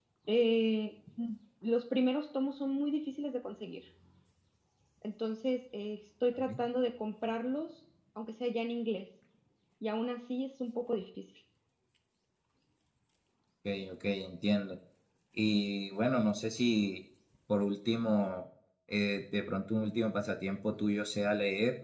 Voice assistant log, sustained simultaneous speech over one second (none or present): none